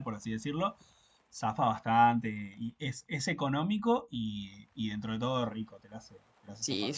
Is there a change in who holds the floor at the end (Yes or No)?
Yes